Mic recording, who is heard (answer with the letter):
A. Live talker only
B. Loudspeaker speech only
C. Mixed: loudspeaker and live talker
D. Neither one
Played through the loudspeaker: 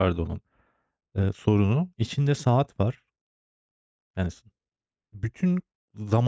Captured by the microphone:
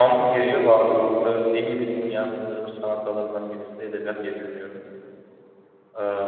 A